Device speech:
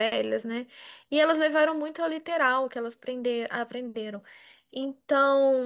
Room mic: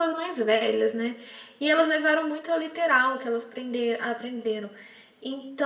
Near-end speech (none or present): none